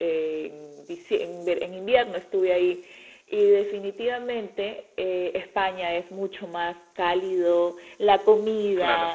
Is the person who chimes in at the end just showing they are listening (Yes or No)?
Yes